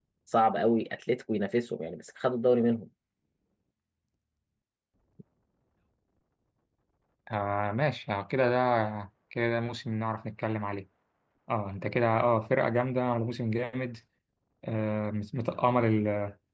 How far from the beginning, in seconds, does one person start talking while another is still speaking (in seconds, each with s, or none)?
none